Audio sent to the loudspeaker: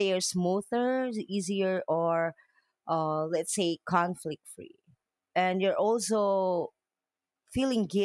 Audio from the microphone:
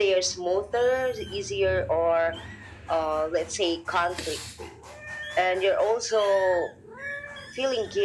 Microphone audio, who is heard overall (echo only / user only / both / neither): echo only